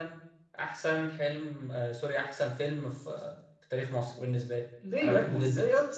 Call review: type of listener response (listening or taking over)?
taking over